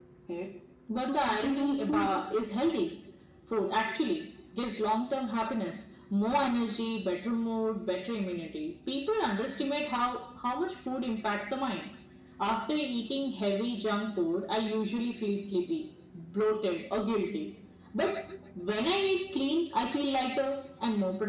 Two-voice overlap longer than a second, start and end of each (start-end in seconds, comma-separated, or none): 1.0-2.2